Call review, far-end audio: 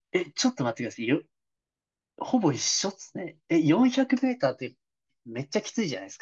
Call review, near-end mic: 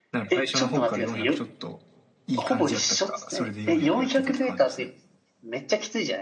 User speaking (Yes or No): Yes